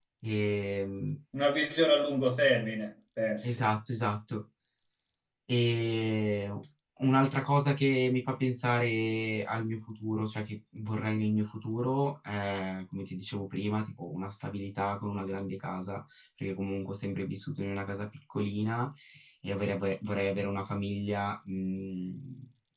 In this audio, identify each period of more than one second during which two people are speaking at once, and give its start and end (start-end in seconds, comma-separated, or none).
none